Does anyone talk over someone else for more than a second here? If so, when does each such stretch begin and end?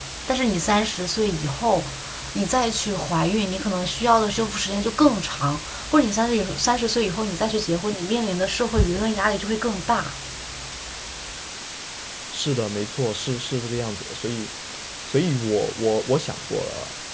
none

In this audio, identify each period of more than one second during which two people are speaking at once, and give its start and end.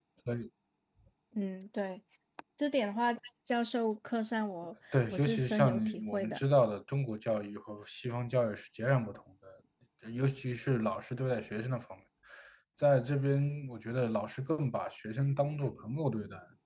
5.1-6.4

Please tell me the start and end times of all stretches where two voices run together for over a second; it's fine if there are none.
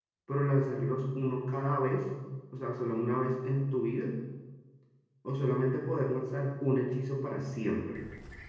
none

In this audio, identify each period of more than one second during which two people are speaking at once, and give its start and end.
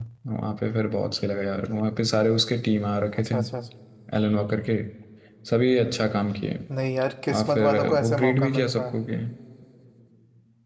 7.3-8.9

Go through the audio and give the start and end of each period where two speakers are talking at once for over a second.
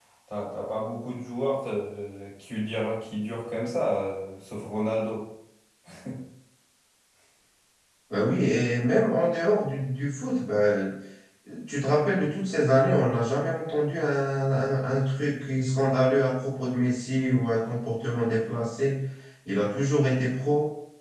none

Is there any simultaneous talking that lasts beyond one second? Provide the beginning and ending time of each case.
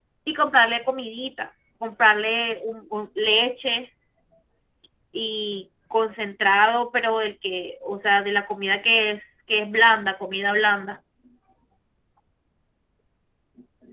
none

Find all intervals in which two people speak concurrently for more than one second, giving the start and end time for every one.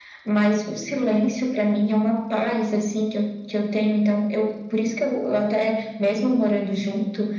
none

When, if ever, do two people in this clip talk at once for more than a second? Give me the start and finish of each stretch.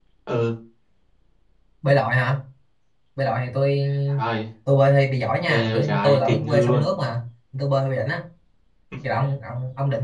5.4-6.9

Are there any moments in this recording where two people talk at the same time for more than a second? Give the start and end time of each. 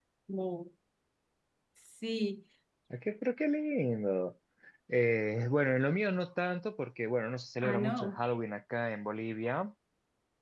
none

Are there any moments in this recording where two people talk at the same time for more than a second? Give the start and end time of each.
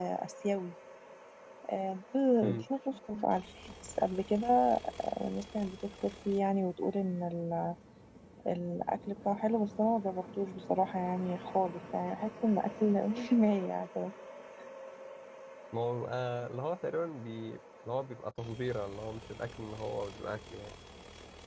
none

